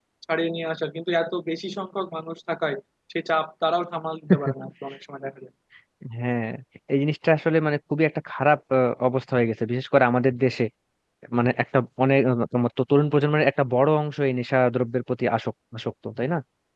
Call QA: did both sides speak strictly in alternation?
Yes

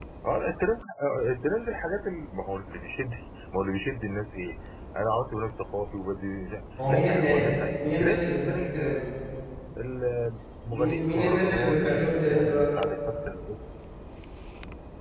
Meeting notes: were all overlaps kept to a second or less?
No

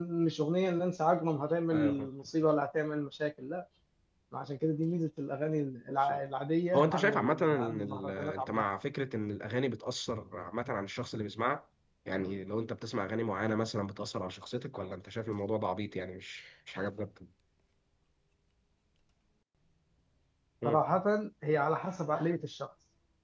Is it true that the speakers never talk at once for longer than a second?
No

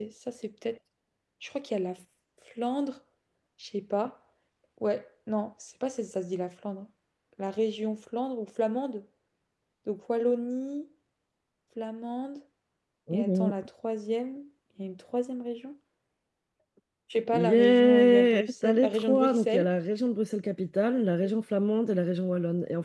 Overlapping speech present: Yes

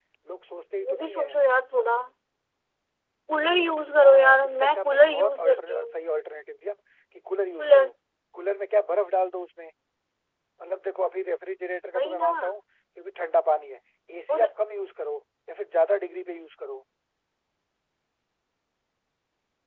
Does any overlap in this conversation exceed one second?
Yes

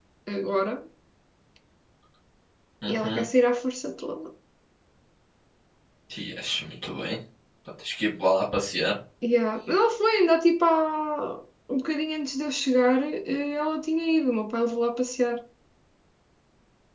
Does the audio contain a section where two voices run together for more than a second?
No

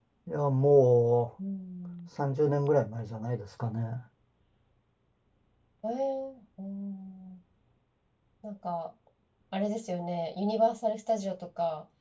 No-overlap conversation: Yes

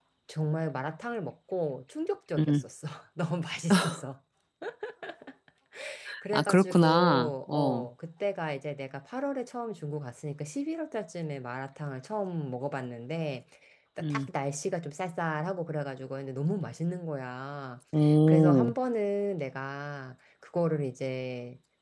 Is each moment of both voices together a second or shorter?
No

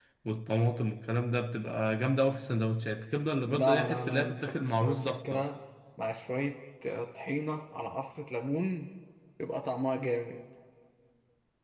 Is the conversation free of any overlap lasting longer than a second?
No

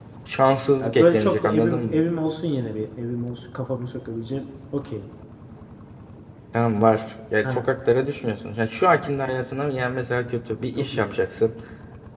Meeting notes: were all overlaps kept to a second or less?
No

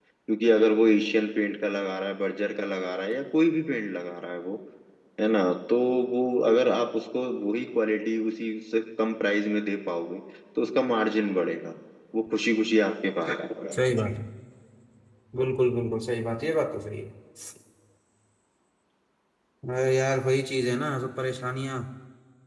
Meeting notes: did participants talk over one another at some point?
No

